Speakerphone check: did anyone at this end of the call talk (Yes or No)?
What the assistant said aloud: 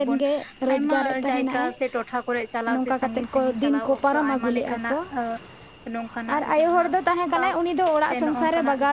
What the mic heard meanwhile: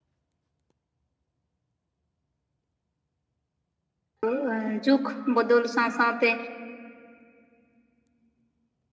Yes